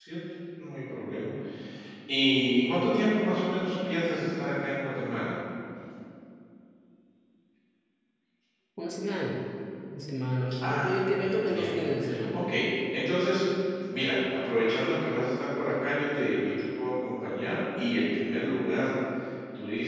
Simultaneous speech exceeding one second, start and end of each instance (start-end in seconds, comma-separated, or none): 10.6-12.4